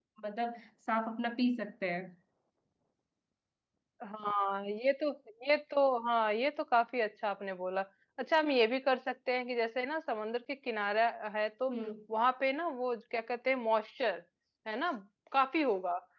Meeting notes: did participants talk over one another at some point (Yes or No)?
No